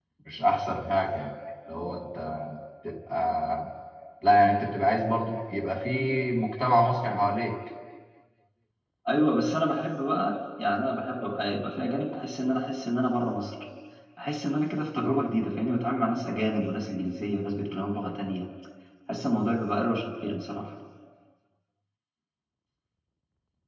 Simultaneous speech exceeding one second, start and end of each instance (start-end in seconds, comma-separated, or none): none